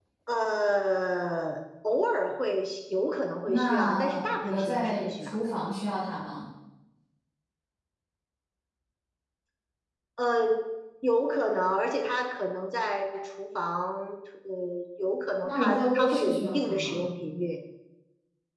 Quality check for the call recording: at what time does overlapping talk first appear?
3 s

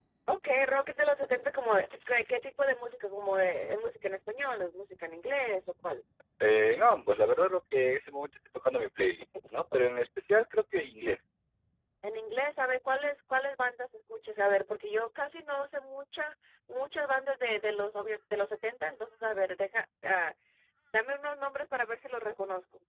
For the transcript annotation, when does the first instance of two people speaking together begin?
none

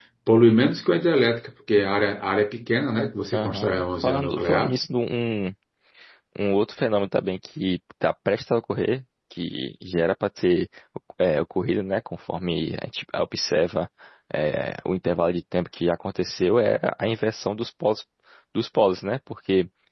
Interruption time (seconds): 3 s

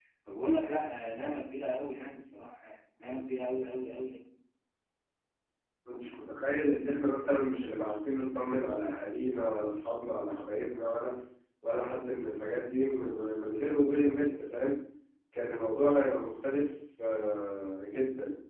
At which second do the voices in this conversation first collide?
none

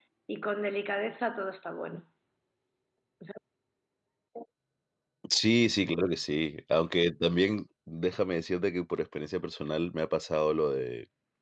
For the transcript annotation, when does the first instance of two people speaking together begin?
none

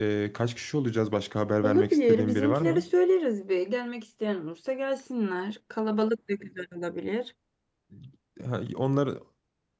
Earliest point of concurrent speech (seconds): 2 s

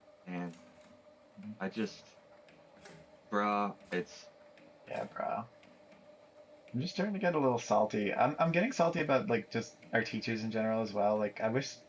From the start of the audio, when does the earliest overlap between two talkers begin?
none

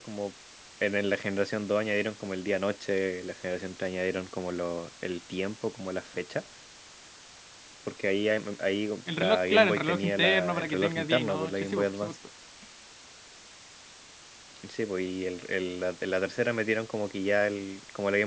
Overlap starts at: 9 s

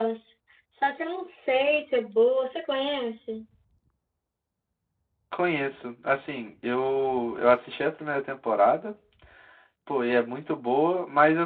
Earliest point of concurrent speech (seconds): none

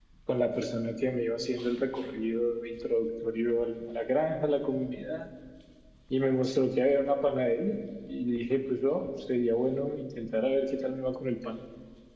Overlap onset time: none

